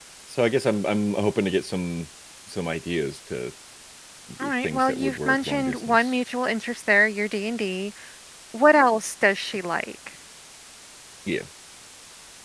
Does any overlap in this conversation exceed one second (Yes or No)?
Yes